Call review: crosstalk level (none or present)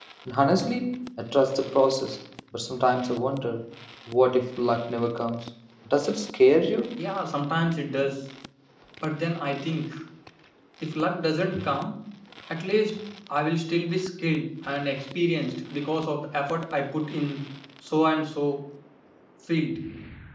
none